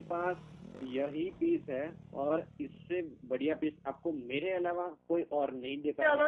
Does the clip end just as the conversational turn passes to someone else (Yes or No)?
Yes